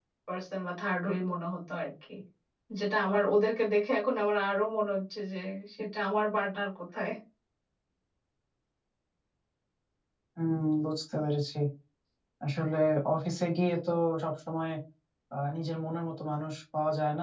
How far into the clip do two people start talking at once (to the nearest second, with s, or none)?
none